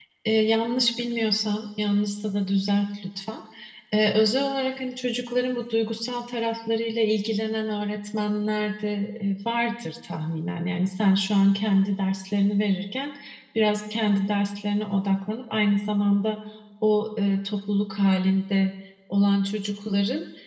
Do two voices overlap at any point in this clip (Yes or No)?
No